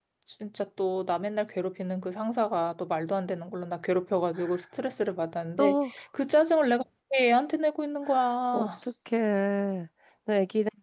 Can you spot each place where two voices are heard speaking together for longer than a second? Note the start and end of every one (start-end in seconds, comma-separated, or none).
none